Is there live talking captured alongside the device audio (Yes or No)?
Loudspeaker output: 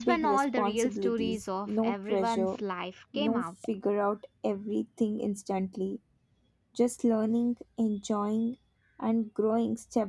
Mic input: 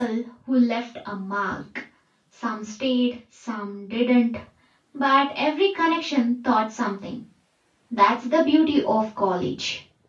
Yes